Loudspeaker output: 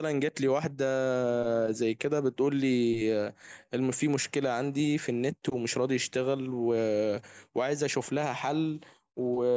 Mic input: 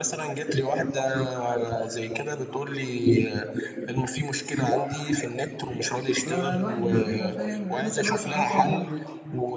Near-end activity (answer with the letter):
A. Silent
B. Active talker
B